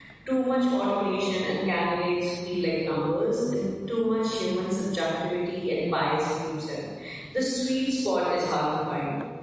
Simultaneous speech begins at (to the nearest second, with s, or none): none